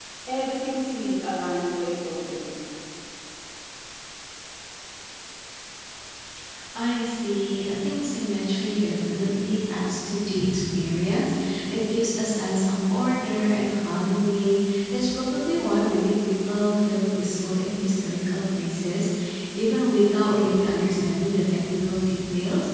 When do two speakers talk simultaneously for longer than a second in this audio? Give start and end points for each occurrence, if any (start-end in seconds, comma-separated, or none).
none